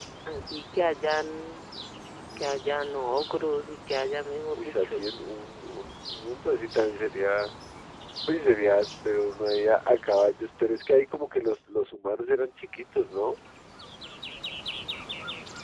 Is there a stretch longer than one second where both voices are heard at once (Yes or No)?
No